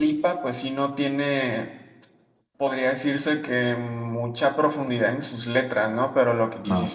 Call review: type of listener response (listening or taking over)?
listening